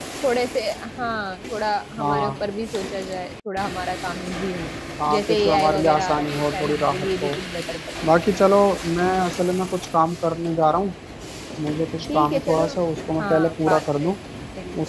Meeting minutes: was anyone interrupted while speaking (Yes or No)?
Yes